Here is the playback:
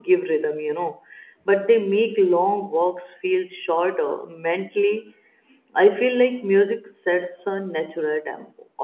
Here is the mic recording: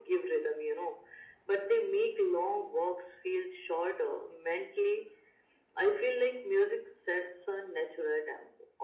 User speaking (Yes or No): No